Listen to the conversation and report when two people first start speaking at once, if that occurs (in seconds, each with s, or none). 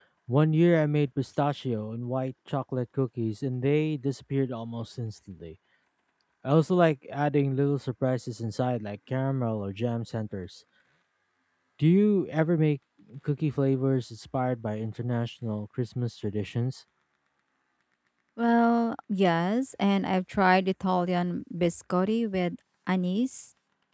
none